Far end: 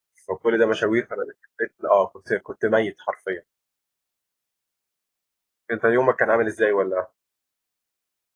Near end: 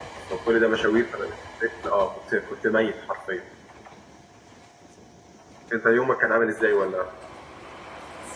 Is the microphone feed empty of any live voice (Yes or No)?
Yes